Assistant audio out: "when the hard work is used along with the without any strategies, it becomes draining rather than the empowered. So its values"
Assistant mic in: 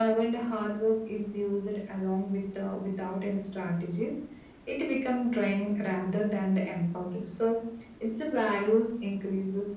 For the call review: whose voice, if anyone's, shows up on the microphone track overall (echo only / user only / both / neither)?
echo only